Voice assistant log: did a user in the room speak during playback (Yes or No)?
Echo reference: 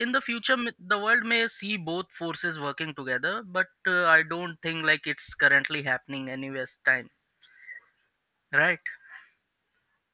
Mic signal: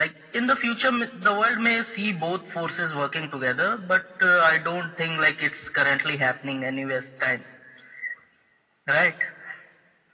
No